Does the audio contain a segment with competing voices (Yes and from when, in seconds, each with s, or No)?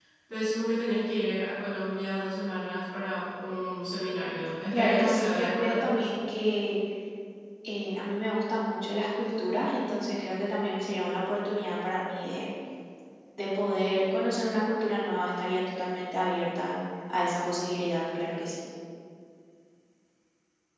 Yes, from 4.7 s